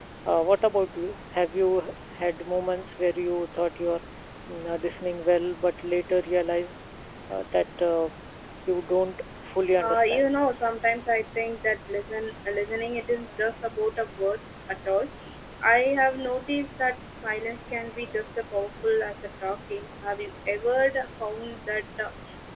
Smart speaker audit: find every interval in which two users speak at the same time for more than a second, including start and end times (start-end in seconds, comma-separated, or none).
none